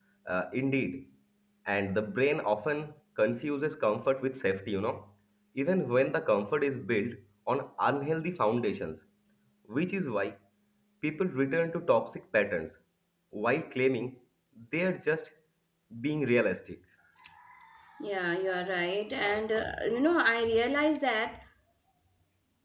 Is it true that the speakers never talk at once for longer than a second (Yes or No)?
Yes